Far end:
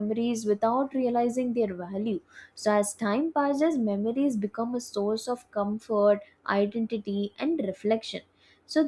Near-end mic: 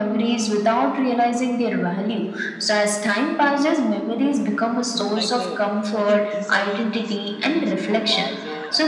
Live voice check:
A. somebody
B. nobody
A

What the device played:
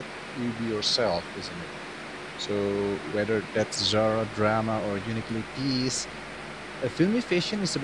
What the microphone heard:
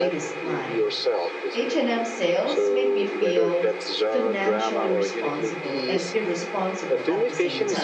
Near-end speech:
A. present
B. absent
A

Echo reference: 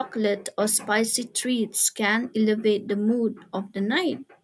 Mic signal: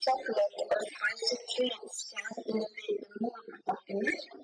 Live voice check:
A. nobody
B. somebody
A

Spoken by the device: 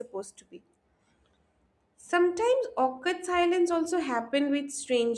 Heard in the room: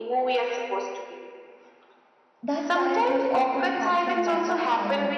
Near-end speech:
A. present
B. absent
A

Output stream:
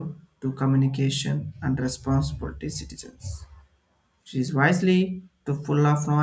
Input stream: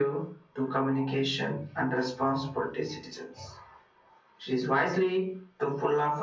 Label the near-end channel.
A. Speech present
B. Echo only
B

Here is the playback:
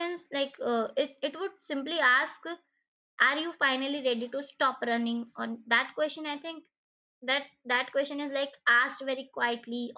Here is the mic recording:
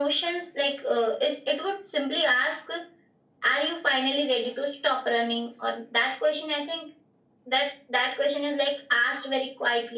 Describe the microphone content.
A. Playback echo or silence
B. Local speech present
A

